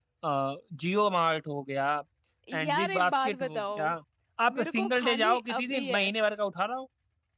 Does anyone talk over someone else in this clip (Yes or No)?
Yes